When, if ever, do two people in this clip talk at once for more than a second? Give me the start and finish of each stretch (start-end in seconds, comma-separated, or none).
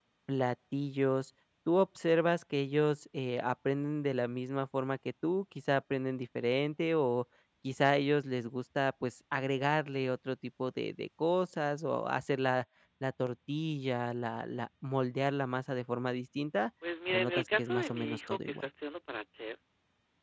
17.1-18.7